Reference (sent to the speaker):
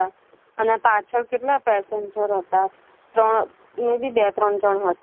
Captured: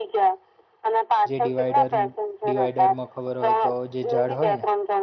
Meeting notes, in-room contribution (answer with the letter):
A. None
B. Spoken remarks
B